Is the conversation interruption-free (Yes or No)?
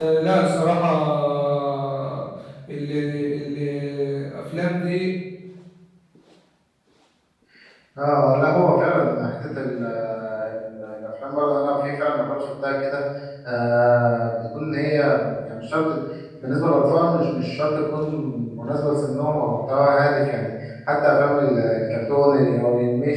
Yes